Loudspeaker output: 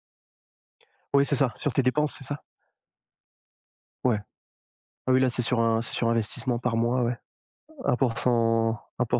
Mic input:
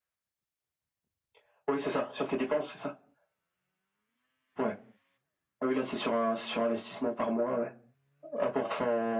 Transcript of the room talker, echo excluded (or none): none